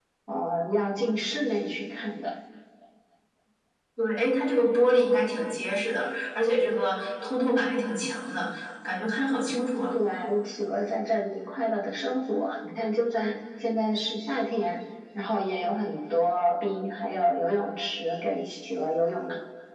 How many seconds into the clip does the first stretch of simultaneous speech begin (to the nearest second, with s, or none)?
none